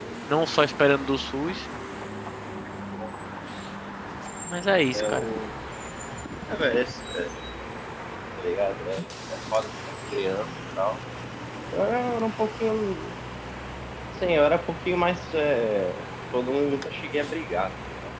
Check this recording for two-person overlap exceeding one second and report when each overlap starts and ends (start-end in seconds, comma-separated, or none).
none